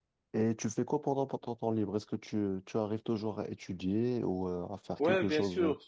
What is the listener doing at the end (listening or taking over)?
taking over